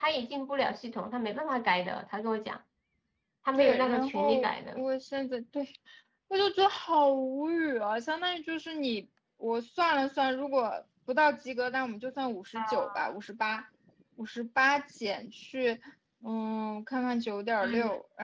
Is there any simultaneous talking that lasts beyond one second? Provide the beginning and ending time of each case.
3.6-4.8

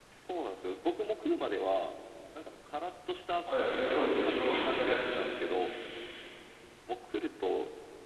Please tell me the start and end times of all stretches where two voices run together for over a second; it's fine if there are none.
3.5-5.5

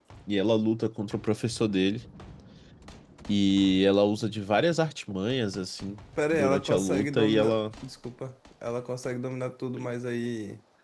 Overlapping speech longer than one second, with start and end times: 6.3-7.6

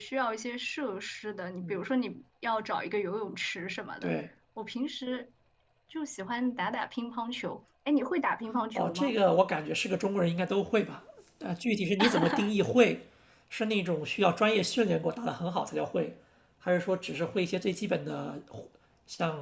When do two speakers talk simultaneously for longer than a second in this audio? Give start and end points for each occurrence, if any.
none

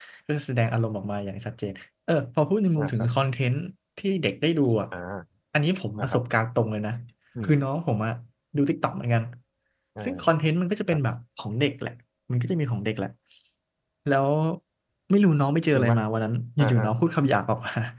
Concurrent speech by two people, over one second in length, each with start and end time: none

